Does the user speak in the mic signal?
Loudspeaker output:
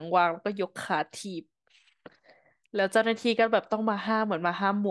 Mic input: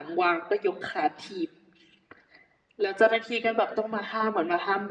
No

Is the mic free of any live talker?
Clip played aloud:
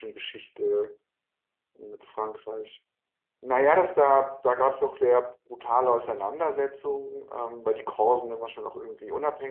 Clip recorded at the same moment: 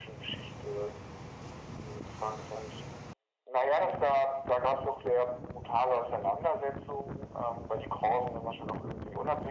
Yes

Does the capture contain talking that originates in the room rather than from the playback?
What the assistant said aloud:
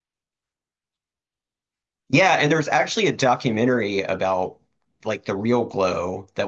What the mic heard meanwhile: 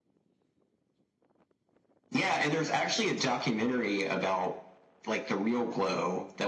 No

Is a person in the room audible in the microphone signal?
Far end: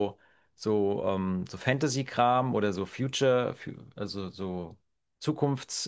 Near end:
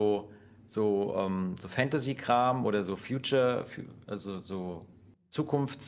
No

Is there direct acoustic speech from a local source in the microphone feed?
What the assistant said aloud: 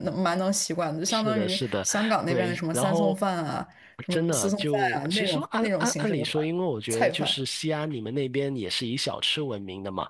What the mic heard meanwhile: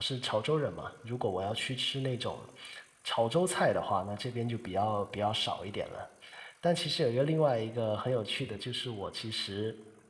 Yes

